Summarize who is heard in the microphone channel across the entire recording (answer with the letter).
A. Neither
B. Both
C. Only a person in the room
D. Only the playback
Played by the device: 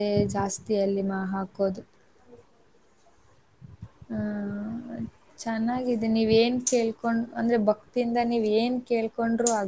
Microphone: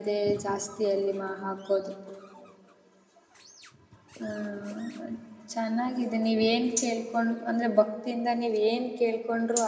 D